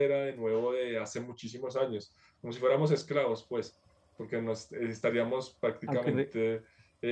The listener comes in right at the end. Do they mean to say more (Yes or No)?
No